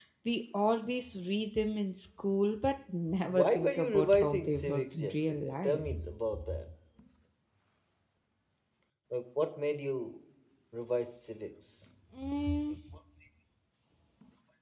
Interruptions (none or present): present